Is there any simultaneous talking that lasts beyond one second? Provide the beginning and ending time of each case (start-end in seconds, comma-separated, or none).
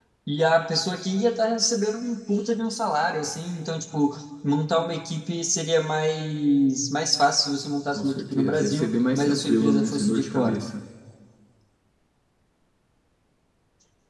7.9-10.6